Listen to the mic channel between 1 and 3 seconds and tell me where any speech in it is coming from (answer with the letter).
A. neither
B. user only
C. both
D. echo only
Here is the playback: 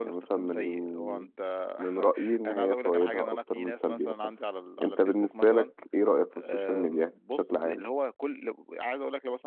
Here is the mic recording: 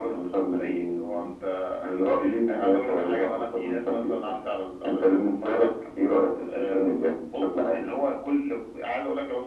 D